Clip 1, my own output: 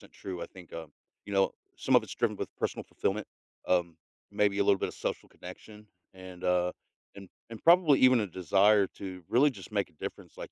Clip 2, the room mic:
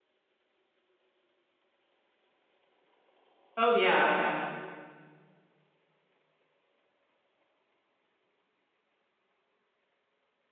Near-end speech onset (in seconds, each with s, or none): 3.6 s